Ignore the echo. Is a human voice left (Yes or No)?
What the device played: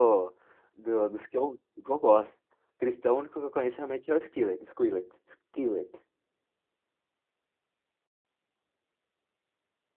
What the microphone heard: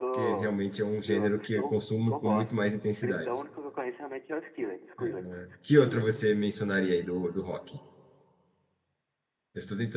Yes